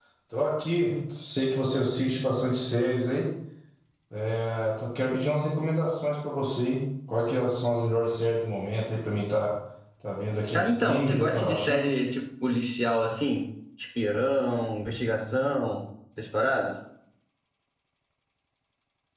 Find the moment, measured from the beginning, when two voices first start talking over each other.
10.5 s

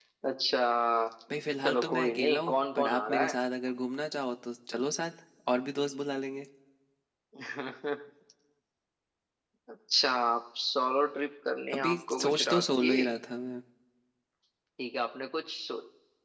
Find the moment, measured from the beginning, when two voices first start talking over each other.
1.6 s

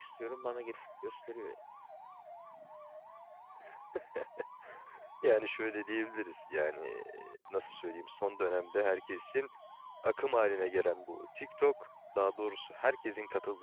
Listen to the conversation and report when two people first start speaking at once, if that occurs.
none

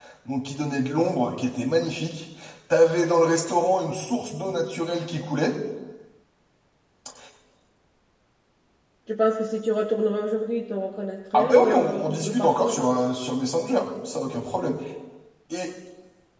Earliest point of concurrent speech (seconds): 11.3 s

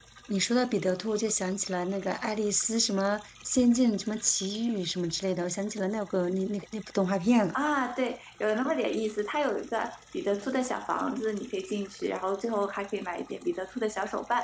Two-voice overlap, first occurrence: none

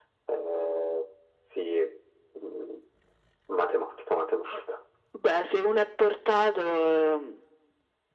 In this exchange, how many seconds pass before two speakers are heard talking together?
none

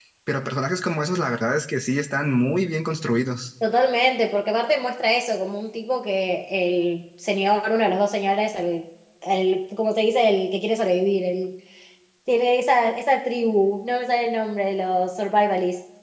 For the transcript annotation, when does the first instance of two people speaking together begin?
none

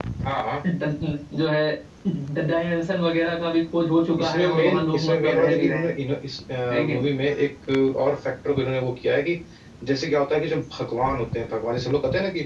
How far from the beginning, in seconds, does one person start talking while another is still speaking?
4.2 s

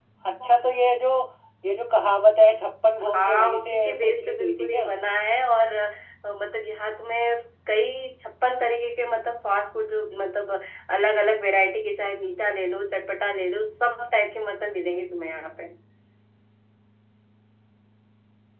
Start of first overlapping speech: 3.0 s

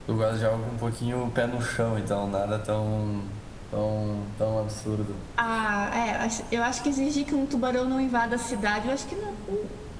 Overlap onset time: none

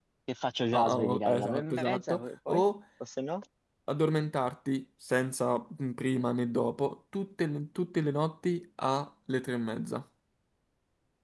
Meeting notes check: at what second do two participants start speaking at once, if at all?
0.7 s

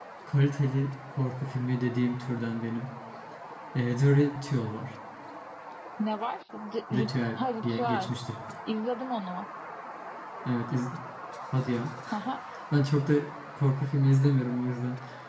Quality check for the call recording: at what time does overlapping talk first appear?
6.9 s

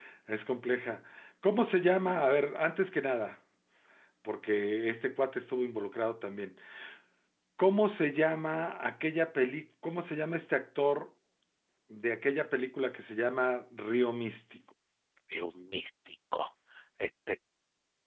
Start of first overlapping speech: none

